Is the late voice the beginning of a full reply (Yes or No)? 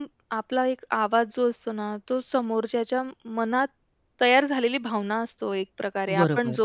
No